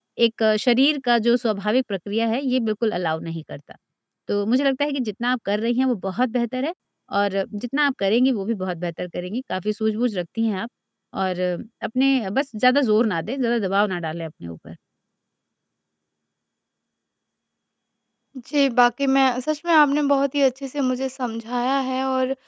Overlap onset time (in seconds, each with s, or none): none